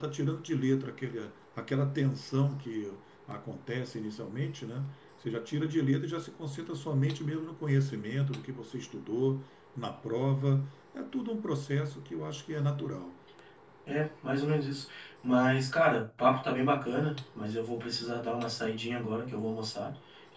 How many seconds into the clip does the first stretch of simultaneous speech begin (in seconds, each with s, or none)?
none